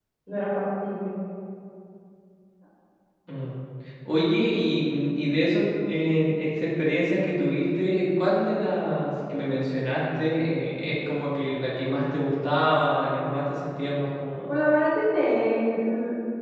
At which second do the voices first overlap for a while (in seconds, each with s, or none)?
none